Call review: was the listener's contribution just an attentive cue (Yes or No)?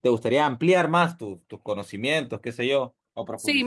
No